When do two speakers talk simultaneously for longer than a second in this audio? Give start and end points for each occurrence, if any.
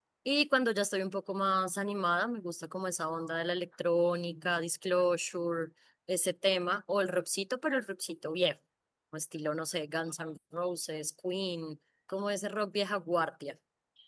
none

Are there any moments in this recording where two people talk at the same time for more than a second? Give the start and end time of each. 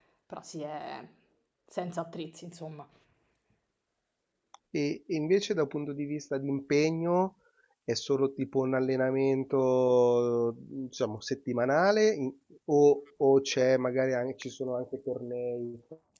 none

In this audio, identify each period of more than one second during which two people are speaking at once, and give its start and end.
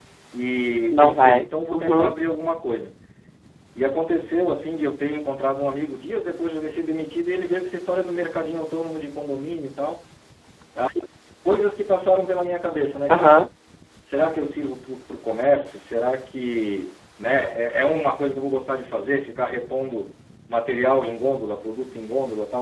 0.9-2.1

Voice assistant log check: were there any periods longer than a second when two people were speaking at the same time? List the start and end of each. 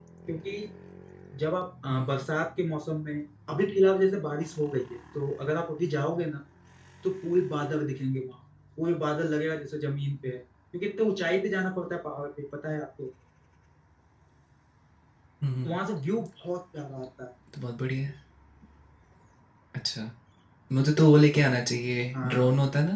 none

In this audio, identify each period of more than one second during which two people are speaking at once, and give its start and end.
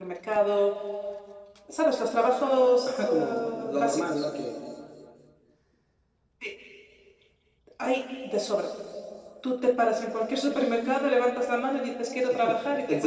2.8-4.2

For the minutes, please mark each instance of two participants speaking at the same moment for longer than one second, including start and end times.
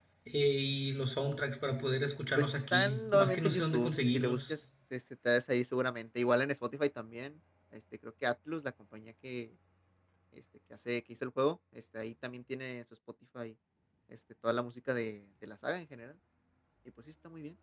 2.4-4.5

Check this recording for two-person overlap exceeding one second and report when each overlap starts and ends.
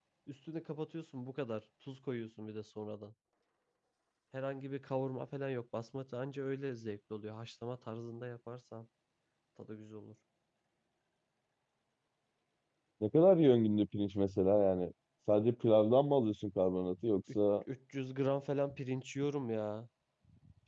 none

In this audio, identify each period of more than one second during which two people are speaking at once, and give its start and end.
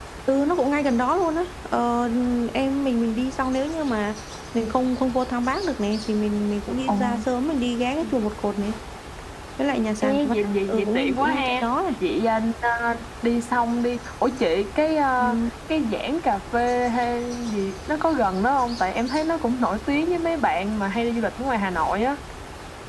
10.0-11.5

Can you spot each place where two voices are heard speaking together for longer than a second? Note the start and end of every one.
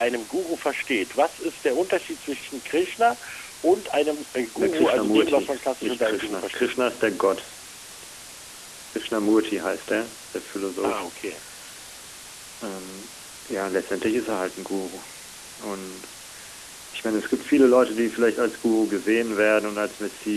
4.5-6.7

